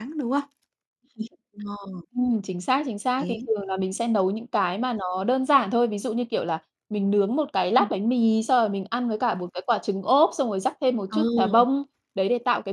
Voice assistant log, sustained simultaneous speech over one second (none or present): none